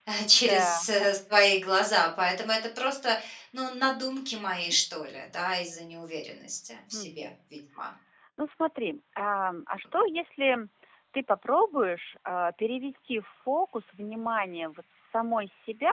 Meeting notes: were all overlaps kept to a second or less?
Yes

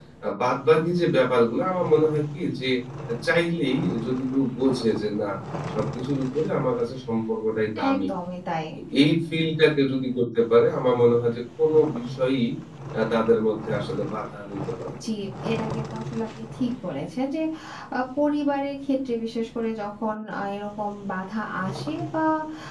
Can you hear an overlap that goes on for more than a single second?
No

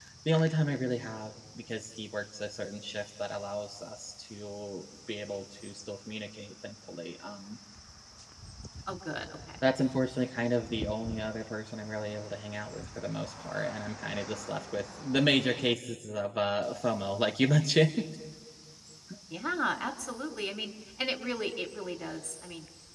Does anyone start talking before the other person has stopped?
No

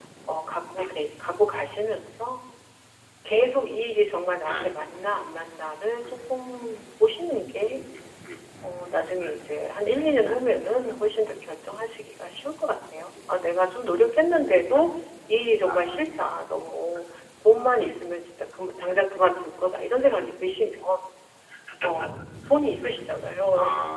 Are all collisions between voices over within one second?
Yes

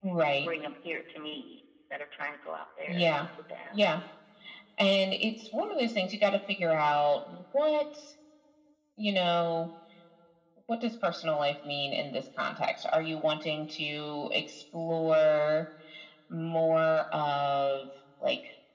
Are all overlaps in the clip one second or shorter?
Yes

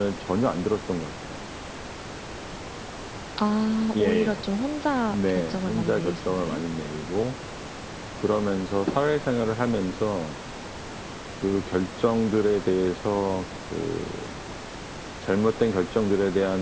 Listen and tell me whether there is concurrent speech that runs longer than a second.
Yes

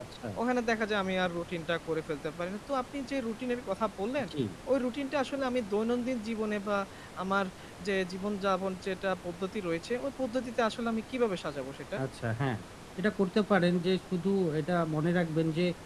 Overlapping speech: No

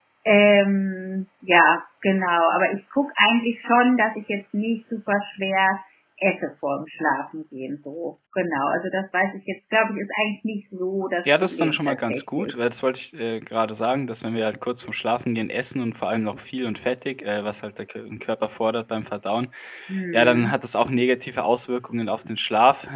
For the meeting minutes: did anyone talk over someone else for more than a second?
Yes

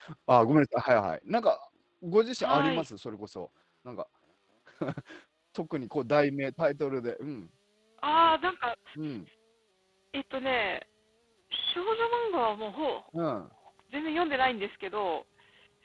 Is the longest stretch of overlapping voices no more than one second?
Yes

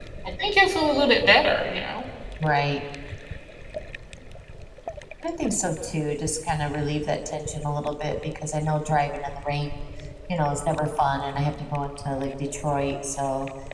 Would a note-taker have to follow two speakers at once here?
No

